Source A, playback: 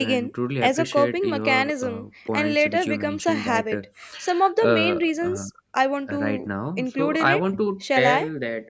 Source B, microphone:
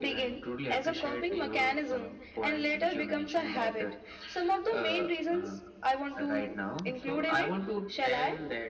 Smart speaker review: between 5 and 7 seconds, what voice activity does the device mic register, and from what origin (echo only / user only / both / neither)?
echo only